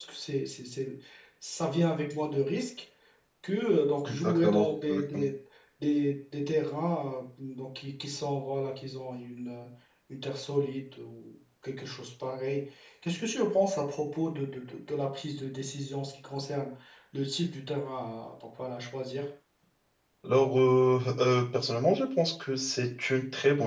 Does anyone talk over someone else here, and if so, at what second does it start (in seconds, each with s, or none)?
4.1 s